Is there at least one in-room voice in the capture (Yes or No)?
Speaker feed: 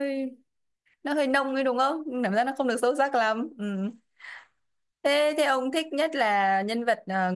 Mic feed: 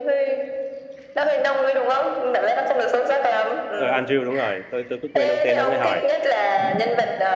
Yes